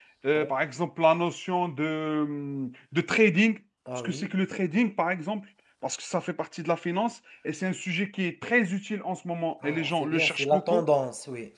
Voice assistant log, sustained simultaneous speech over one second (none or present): present